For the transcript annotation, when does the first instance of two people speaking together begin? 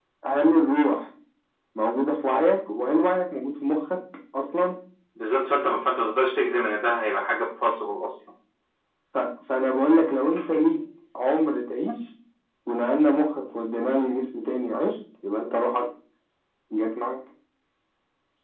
none

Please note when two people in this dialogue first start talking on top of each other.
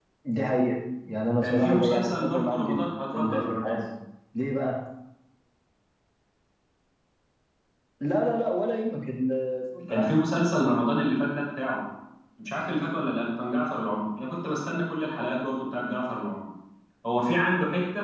1.4 s

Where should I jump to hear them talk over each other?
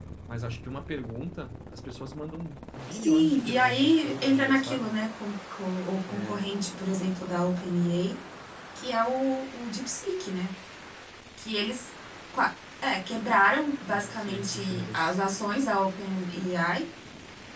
2.9 s

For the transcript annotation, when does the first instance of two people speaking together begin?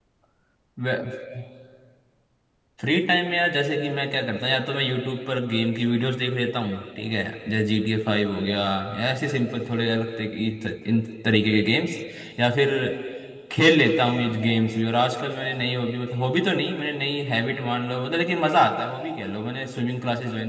none

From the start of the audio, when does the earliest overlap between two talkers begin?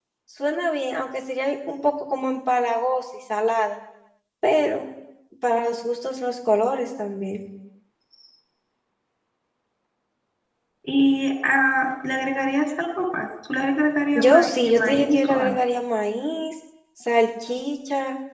14.2 s

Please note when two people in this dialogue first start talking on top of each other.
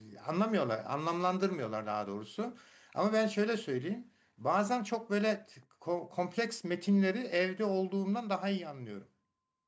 none

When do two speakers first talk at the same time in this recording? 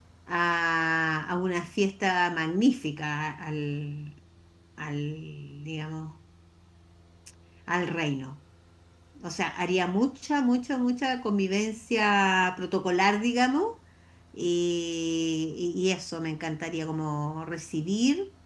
none

